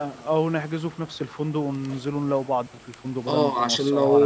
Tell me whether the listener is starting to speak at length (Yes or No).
Yes